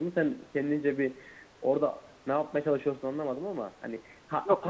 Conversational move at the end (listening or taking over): listening